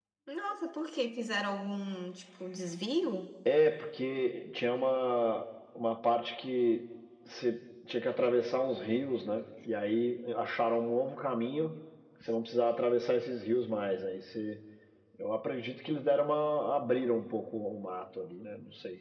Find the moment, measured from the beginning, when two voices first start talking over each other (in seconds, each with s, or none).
none